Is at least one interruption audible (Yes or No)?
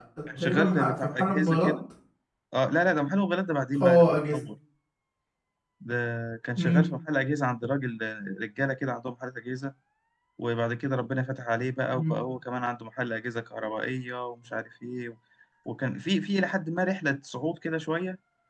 Yes